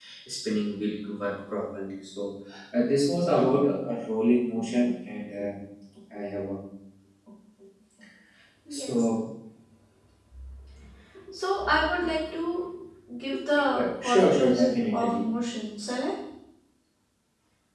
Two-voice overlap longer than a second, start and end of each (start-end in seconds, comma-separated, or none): 13.8-15.2